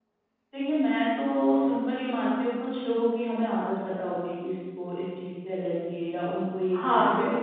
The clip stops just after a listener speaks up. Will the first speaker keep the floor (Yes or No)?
No